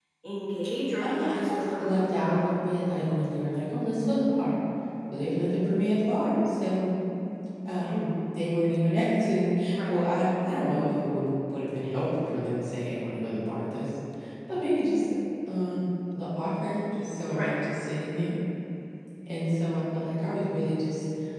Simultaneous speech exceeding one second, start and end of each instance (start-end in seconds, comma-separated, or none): 1.0-2.4